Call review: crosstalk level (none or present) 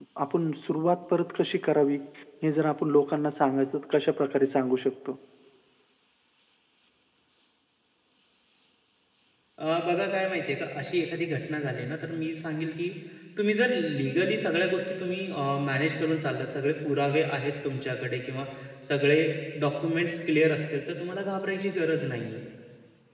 none